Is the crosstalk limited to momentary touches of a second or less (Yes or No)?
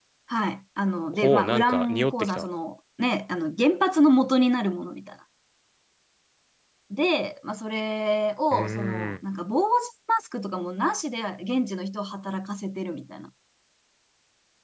No